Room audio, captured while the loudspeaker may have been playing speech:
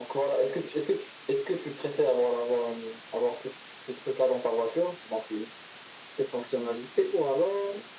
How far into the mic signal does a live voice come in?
none

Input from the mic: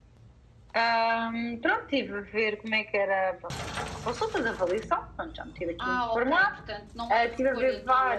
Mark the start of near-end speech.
5.8 s

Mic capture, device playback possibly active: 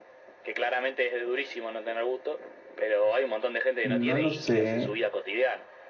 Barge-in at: 3.8 s

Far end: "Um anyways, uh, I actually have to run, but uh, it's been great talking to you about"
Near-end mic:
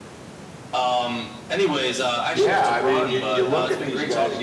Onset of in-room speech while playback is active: 2.3 s

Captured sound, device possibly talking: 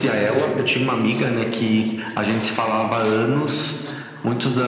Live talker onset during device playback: none

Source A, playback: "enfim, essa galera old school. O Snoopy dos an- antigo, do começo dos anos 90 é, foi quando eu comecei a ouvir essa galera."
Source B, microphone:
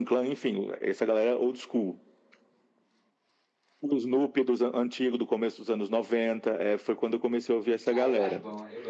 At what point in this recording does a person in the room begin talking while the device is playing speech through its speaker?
7.9 s

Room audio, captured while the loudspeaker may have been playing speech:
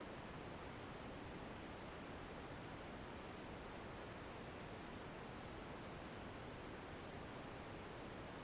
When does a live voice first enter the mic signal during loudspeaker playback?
none

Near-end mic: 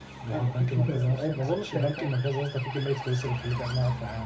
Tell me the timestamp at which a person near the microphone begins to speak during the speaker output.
0.3 s

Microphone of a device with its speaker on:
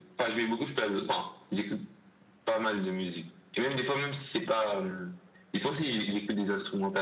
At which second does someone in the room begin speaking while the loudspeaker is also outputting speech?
none

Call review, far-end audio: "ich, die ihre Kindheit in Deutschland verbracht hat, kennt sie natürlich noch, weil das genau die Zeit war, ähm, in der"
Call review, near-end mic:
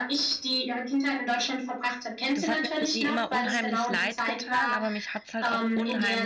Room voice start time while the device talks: 2.3 s

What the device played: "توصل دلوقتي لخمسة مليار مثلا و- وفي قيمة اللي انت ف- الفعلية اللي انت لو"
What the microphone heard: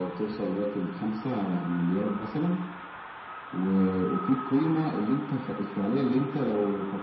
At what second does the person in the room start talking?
none

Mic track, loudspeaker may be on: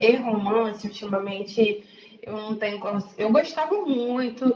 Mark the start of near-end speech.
none

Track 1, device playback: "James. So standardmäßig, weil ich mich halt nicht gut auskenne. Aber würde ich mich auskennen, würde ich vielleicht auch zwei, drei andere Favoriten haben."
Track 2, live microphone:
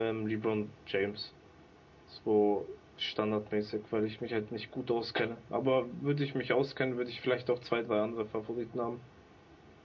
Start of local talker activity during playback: none

